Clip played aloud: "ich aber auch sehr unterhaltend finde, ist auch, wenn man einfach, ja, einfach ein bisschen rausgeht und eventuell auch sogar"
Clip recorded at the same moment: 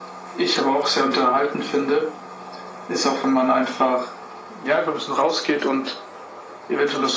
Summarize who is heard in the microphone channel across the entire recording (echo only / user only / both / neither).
echo only